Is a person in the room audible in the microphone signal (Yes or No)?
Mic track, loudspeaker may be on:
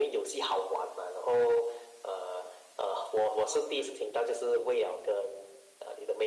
No